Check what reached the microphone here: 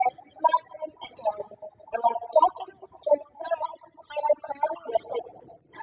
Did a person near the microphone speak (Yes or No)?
No